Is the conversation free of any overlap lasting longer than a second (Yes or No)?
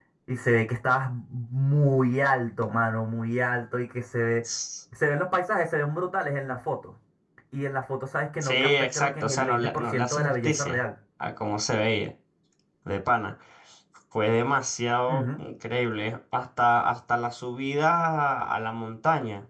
No